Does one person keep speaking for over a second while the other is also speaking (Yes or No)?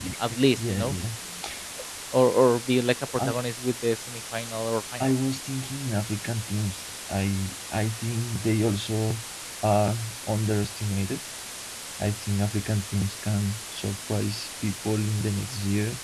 No